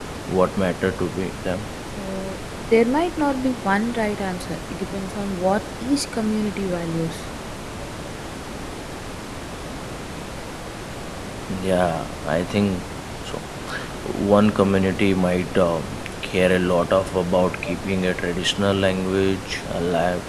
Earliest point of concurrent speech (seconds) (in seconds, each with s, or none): none